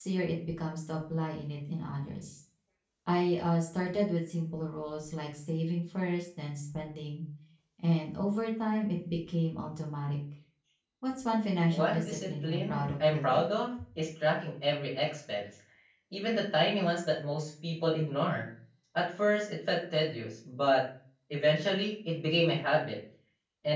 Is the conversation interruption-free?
No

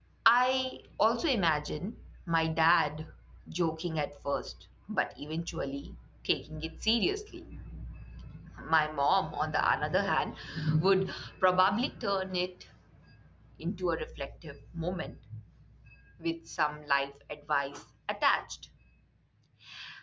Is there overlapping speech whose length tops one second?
No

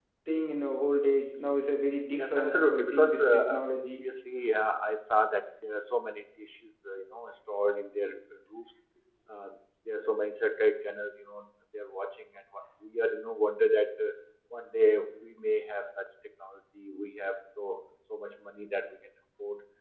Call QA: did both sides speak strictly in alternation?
No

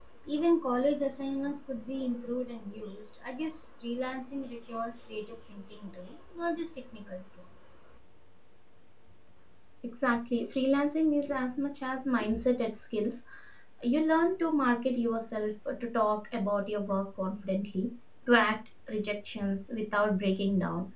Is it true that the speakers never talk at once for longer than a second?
Yes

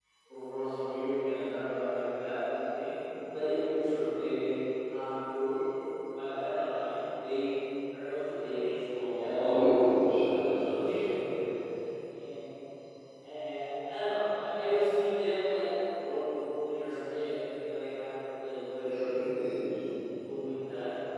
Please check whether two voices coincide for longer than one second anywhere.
Yes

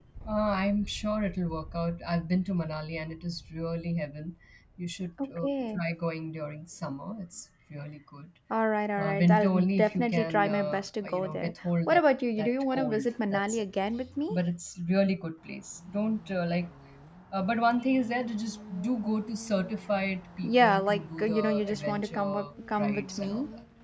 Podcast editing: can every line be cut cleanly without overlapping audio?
No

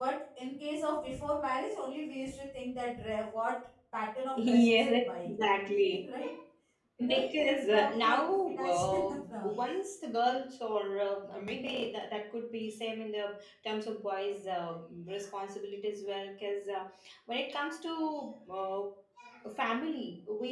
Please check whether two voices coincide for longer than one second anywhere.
Yes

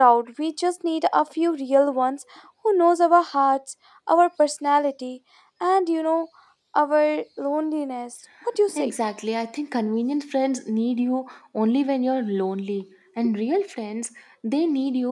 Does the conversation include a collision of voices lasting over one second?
No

